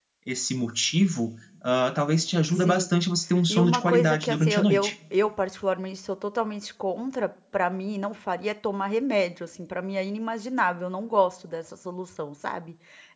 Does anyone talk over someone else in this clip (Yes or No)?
Yes